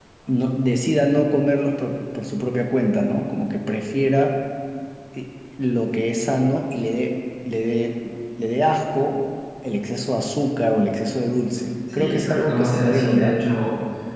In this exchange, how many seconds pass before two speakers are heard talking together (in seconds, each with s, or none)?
11.9 s